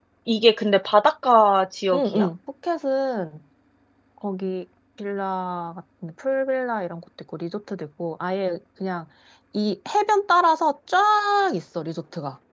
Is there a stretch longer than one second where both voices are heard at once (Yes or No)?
No